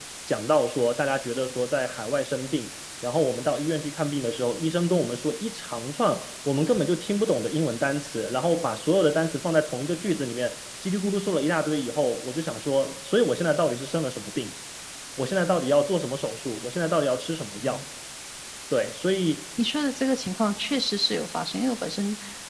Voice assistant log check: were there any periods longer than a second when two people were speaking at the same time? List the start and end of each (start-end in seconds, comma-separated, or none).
none